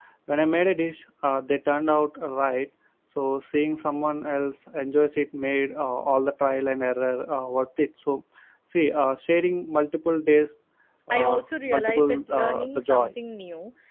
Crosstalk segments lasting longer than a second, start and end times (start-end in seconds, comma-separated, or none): 11.1-13.1